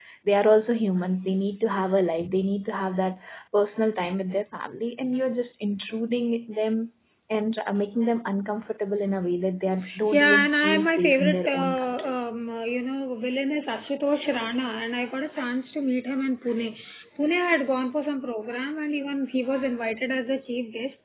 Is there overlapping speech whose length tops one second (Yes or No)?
Yes